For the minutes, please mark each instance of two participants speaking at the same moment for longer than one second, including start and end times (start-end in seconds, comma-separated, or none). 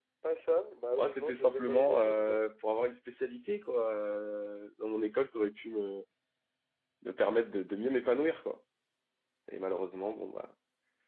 1.0-2.4